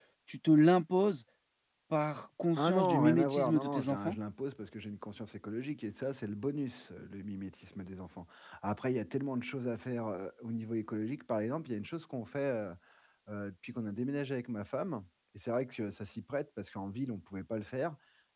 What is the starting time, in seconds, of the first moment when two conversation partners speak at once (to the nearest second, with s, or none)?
3 s